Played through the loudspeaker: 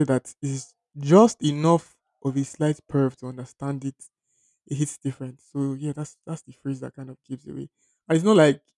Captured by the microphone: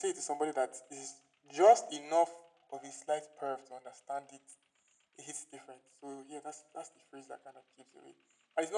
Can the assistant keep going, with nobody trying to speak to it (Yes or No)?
Yes